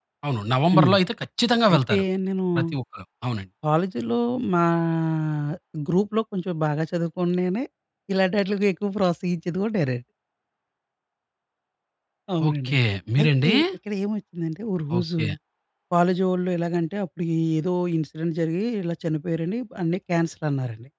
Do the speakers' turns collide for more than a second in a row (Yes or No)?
No